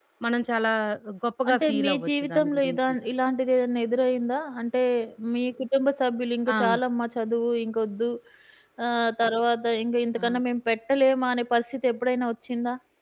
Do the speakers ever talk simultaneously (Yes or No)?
Yes